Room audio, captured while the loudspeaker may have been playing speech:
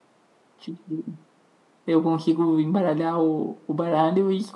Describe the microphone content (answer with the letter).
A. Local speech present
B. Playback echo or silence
A